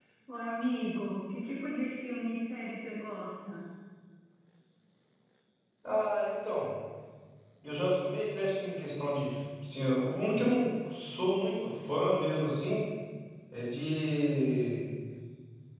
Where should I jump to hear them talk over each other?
none

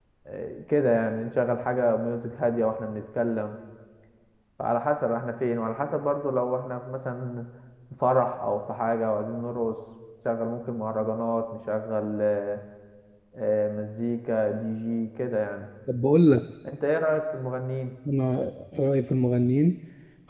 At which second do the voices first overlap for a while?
none

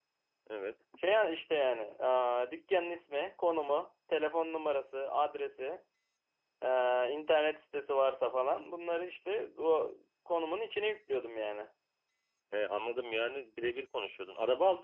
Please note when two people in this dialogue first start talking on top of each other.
none

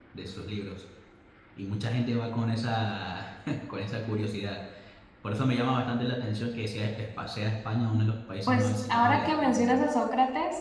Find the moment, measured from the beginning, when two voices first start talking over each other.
8.5 s

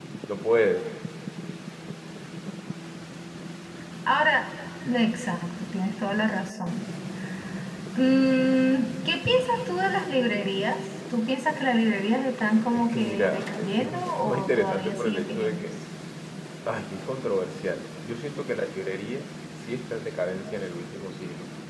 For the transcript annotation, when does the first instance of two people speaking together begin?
12.7 s

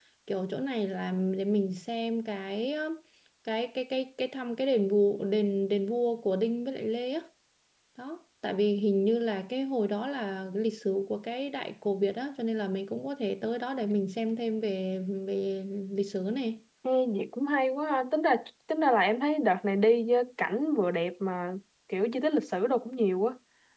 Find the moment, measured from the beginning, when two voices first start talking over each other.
none

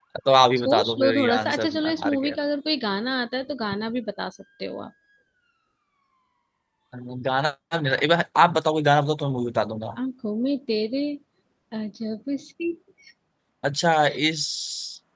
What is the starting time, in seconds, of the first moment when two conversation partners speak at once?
0.6 s

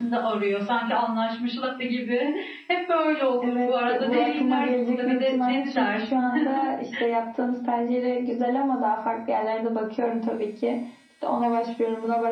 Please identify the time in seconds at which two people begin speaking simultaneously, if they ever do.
3.4 s

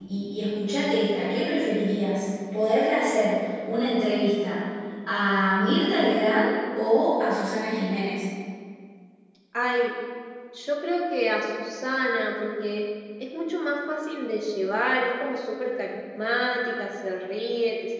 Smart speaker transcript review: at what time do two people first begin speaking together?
none

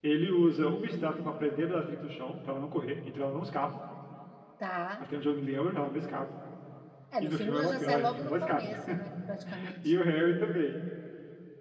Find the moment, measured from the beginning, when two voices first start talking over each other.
7.2 s

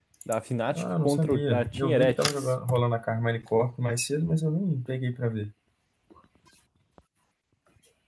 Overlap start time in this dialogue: 0.7 s

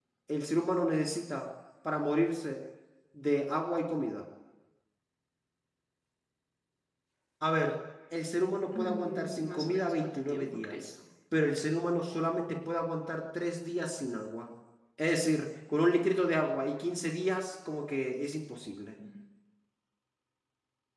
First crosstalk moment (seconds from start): 8.7 s

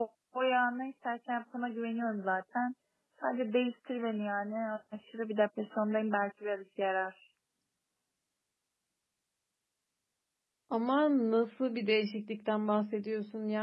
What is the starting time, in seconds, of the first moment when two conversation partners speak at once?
none

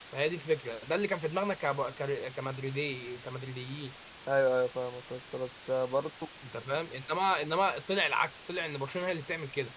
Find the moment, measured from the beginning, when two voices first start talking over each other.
none

